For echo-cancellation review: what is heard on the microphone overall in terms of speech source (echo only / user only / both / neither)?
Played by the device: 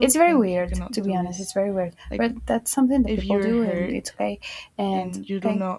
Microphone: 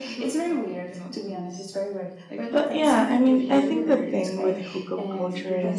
both